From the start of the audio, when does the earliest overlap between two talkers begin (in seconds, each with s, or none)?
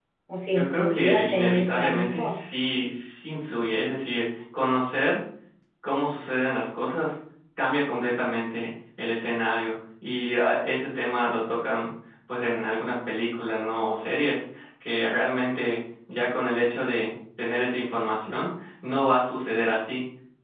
0.5 s